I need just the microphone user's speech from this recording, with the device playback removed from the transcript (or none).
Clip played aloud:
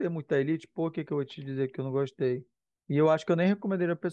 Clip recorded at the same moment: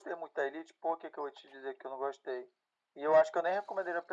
none